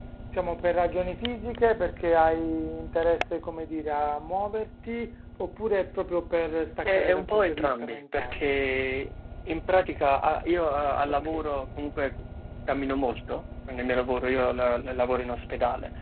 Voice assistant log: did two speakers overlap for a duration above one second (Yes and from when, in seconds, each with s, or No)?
Yes, from 6.8 s